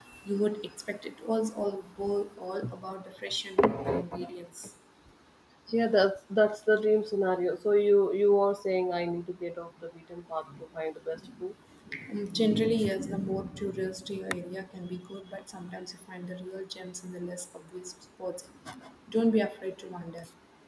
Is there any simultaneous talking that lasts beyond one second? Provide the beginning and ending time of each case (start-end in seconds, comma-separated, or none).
none